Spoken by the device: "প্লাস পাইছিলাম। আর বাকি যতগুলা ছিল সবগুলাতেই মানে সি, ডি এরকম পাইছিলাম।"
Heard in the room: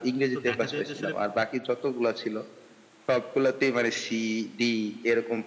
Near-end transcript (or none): তো দেখা যায় যে আসলে